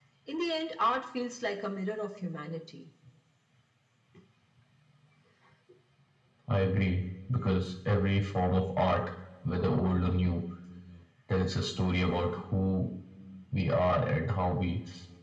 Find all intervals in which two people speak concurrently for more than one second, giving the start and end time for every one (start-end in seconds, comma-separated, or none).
none